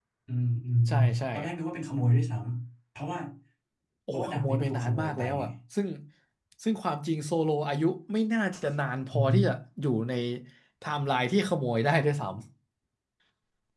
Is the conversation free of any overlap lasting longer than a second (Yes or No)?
No